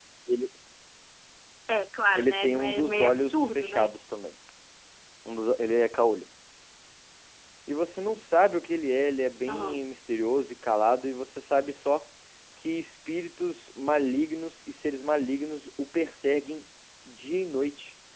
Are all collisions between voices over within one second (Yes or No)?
No